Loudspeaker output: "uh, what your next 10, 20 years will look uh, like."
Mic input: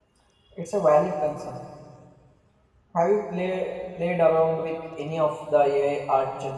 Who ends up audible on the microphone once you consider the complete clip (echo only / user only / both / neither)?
user only